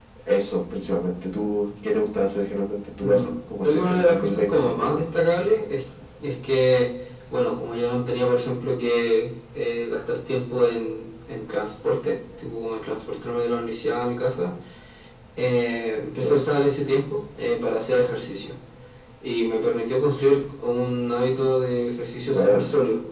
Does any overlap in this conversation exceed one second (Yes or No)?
Yes